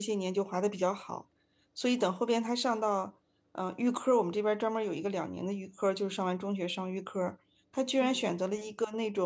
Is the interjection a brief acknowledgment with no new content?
Yes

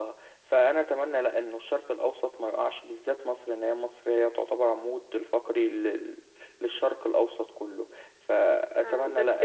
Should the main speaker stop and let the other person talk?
Yes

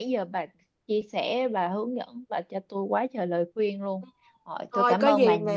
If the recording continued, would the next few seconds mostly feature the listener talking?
Yes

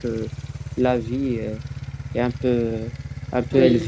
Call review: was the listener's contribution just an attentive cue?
Yes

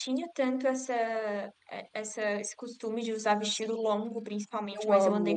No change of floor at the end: Yes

